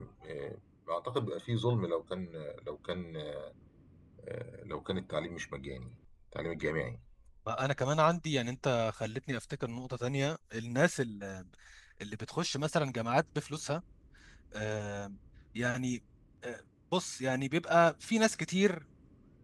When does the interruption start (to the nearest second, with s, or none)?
none